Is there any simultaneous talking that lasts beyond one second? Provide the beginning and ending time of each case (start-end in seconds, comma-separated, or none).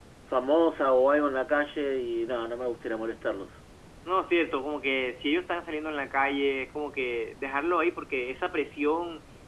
none